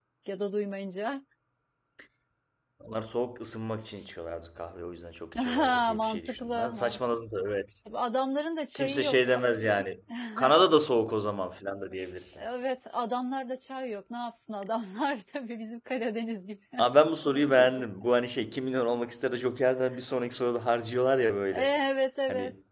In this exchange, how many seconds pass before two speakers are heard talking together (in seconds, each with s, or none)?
5.4 s